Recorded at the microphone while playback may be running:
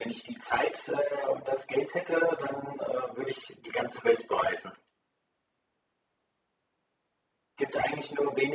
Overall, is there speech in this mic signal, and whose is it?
echo only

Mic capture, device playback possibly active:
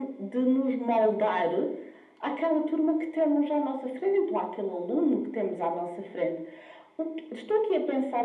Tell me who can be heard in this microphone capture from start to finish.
echo only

